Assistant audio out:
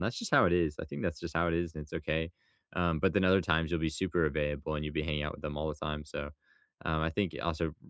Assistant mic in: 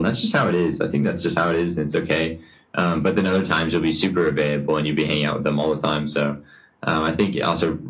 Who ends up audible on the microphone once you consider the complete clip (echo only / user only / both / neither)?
echo only